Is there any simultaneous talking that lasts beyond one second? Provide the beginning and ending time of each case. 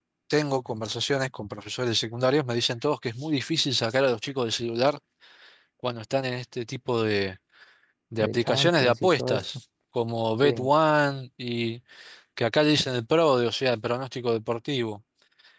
8.2-9.4

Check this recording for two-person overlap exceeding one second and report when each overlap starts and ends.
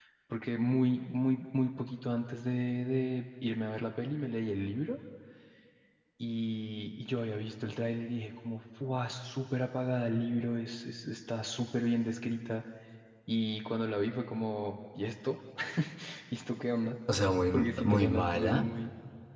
17.5-18.7

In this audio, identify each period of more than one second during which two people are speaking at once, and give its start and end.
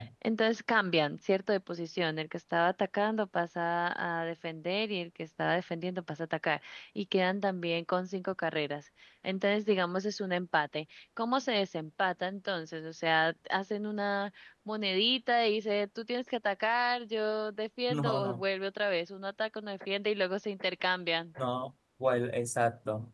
none

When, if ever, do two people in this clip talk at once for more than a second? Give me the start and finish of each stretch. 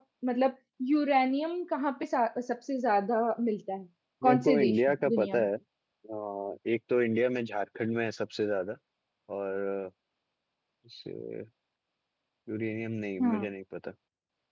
4.2-5.5

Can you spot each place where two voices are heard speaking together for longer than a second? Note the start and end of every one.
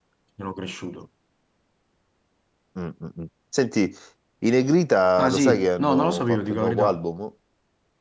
5.2-7.0

